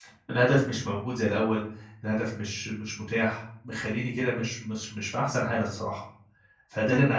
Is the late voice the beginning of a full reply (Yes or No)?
No